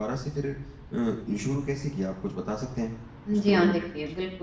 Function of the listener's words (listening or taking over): taking over